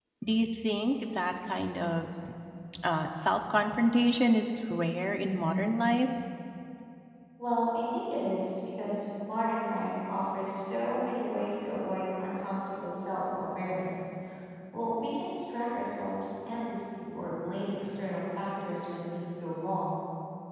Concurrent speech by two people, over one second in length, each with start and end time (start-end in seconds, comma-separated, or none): none